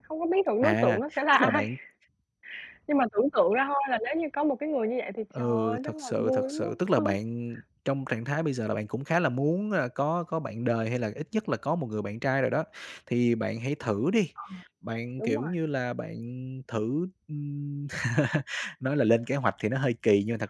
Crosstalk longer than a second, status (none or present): present